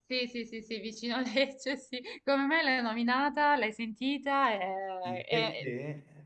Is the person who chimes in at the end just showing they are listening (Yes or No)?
No